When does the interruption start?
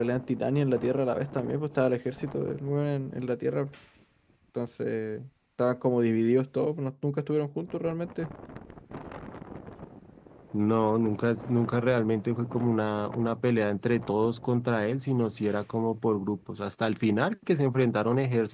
none

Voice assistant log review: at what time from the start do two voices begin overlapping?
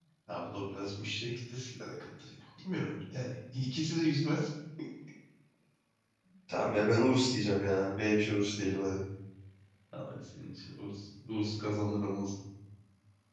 none

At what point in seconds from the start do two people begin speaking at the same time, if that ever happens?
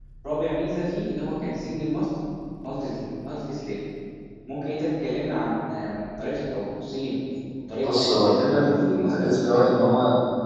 7.8 s

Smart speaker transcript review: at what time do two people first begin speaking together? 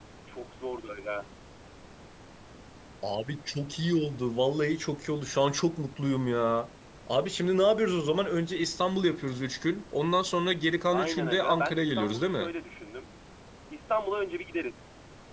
10.9 s

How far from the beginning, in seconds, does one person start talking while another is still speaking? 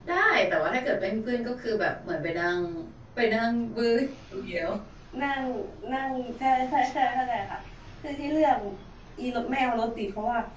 none

